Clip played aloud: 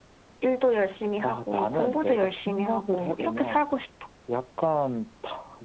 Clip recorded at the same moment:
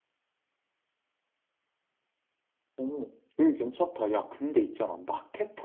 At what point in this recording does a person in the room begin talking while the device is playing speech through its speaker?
3 s

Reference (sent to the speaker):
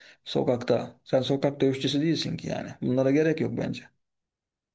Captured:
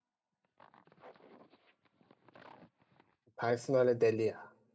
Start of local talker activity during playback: 3 s

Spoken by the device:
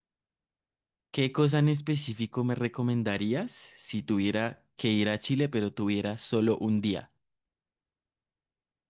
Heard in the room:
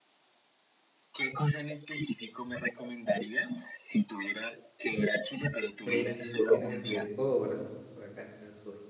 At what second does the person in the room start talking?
6 s

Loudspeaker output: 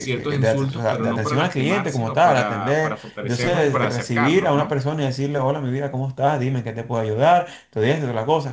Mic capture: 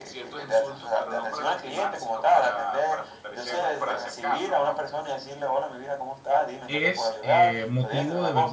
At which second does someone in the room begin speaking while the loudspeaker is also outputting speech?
7 s

